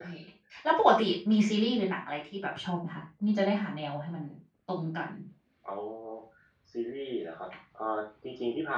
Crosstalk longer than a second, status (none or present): none